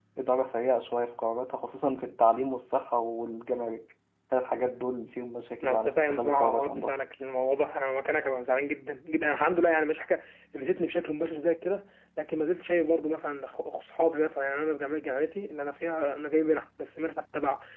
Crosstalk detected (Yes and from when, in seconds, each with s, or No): Yes, from 5.6 s